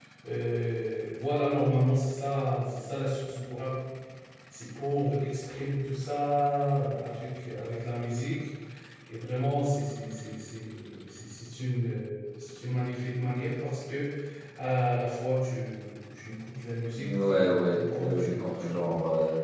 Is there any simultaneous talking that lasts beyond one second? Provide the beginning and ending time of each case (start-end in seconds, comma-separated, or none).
16.9-18.8